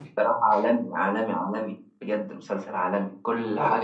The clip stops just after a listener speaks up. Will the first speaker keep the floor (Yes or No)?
Yes